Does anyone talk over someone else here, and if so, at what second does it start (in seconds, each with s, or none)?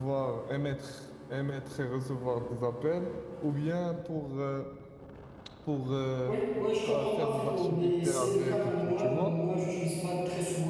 7.1 s